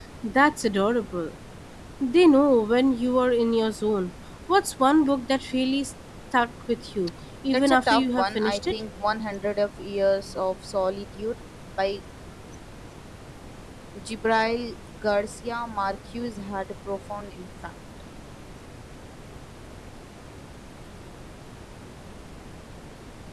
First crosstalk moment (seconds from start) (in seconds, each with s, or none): 7.5 s